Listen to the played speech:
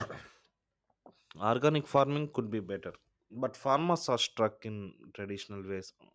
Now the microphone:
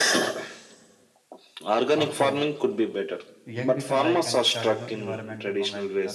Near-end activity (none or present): present